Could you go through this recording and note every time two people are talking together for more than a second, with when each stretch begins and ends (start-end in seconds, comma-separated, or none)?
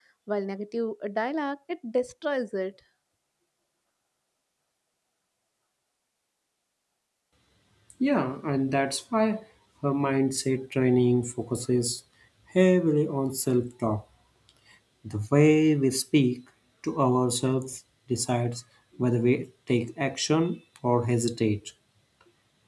none